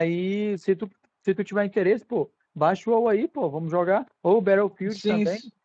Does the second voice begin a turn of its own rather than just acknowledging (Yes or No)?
Yes